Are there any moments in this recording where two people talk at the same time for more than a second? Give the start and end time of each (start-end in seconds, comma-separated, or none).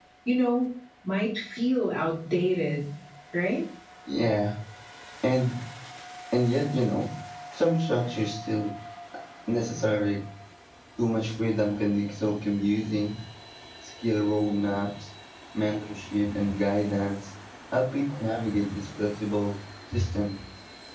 none